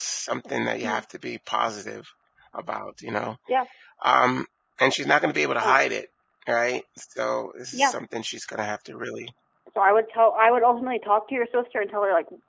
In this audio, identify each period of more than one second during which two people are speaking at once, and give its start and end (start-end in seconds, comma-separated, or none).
none